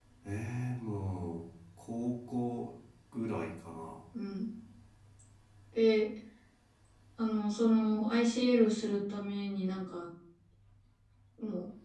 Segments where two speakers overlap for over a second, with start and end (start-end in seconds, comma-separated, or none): none